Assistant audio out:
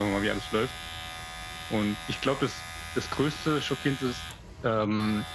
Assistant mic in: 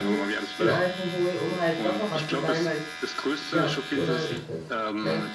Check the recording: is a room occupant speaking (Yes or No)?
Yes